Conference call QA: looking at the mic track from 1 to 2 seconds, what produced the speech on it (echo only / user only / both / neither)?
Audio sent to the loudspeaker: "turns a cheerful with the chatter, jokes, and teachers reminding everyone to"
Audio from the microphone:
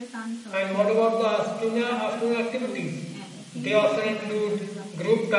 both